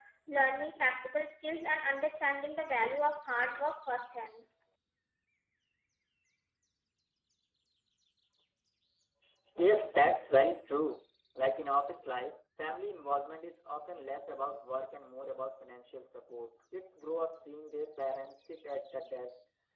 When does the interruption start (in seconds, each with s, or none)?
none